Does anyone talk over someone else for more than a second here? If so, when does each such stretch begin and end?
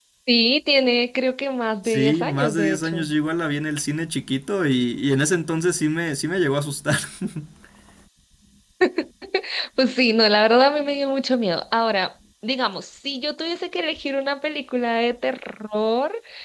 1.8-3.1

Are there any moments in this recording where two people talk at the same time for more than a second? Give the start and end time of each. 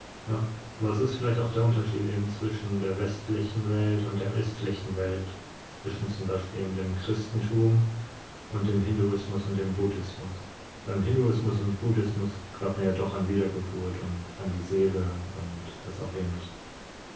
none

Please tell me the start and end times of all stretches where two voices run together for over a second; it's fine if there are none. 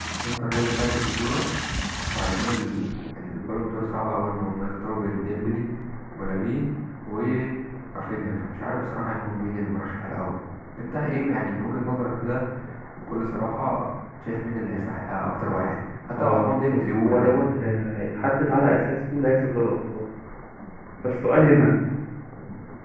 16.2-17.4

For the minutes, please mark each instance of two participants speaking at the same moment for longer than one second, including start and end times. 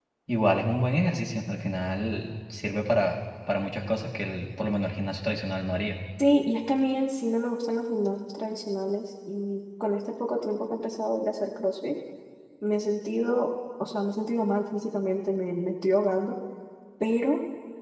none

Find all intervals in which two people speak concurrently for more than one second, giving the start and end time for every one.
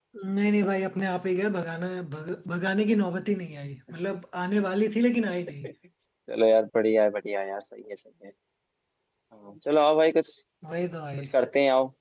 none

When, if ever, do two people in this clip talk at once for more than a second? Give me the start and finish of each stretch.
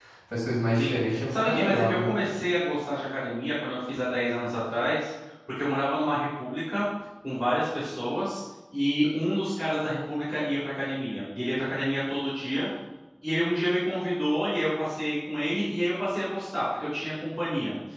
0.7-2.1

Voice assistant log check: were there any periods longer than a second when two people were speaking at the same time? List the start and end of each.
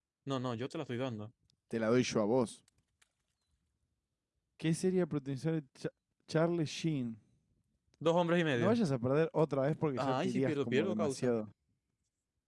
10.0-11.3

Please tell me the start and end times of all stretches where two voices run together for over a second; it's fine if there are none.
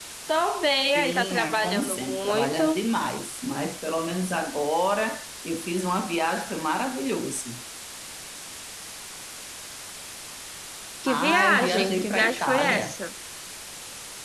1.0-2.8, 11.1-13.0

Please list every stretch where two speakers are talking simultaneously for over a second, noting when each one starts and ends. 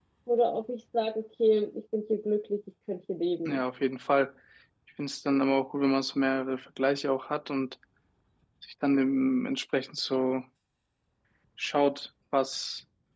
none

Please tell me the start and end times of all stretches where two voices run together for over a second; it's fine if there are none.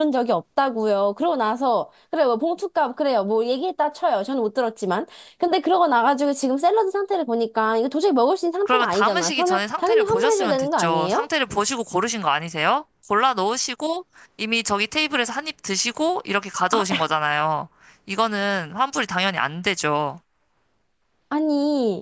8.7-11.2

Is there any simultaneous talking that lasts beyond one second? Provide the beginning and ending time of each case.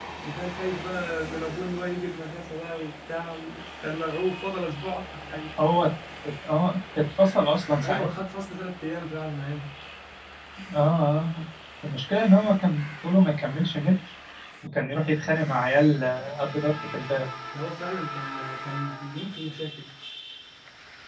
none

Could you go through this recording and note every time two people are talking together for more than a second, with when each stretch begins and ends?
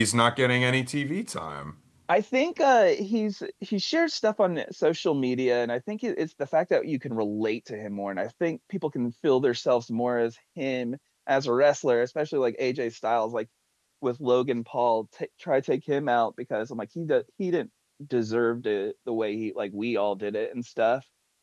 none

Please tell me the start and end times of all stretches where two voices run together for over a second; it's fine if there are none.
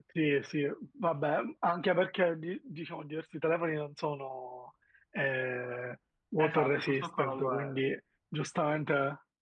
6.4-7.8

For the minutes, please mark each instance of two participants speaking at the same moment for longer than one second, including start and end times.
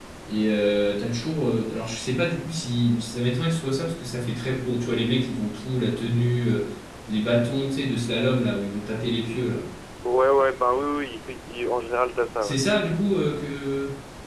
none

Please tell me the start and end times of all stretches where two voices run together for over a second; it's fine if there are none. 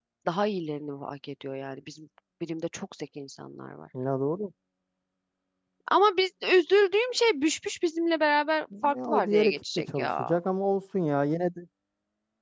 8.8-10.4

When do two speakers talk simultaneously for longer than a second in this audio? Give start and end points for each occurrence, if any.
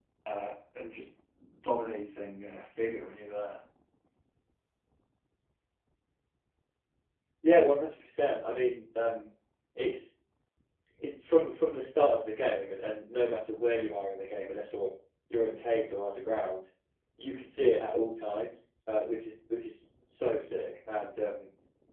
none

